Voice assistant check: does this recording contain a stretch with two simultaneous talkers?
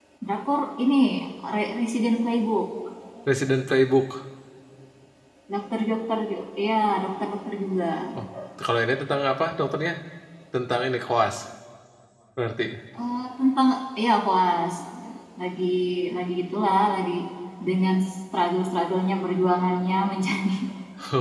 No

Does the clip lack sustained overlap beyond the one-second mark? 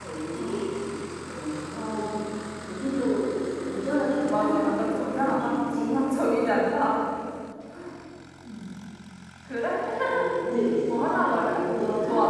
No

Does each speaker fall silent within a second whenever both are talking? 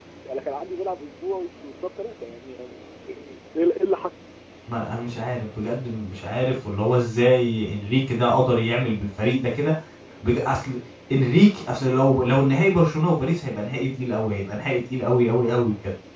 Yes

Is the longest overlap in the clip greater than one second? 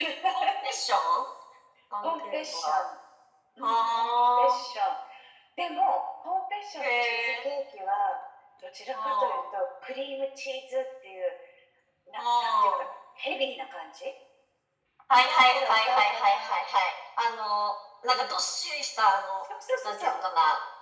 Yes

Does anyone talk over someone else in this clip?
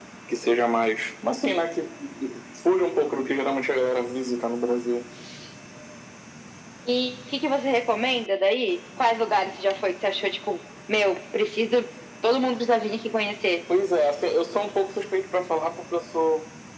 No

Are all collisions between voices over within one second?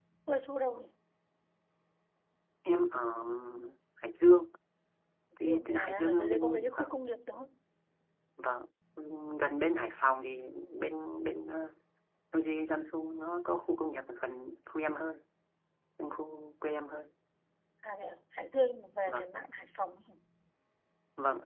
No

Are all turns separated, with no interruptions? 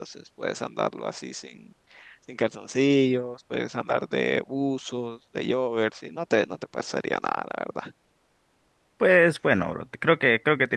Yes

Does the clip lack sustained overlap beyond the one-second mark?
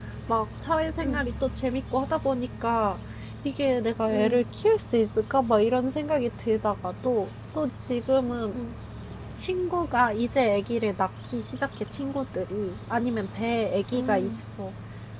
Yes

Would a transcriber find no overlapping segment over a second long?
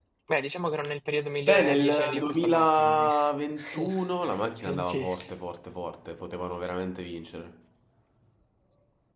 No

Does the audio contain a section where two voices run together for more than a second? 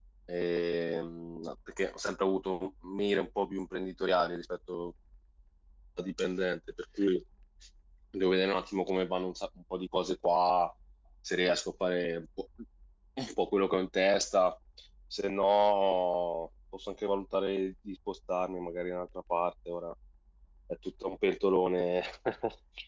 No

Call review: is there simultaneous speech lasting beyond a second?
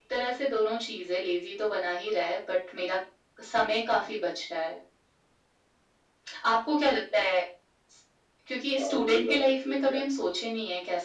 Yes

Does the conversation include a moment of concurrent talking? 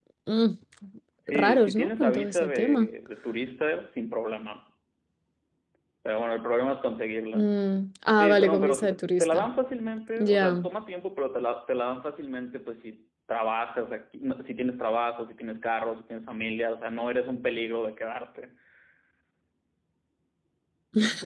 Yes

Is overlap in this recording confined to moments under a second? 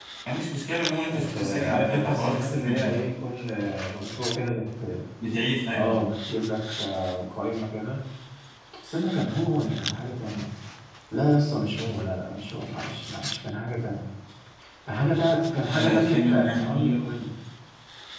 No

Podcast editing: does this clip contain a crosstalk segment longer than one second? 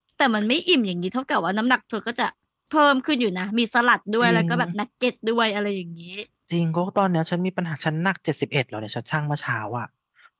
No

